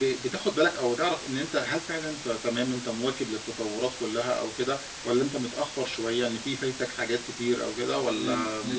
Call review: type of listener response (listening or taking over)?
taking over